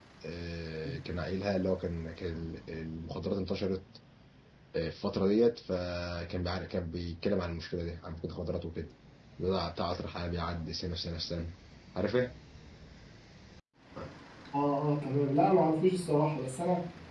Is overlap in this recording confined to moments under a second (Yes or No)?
Yes